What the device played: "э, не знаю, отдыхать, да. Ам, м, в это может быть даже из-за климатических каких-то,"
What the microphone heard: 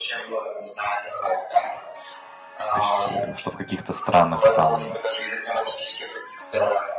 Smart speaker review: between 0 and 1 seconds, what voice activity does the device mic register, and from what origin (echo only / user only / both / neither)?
echo only